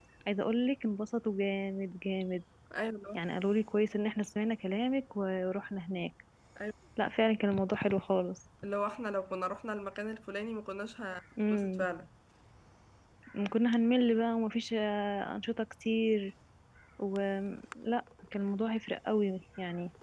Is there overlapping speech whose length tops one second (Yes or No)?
No